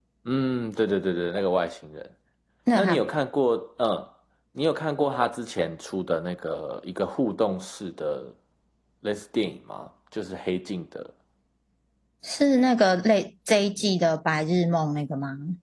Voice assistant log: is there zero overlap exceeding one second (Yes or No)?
Yes